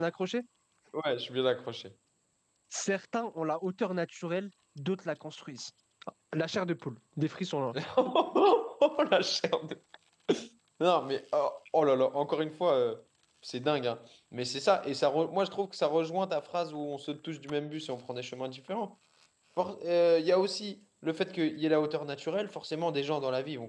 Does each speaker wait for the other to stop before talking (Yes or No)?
Yes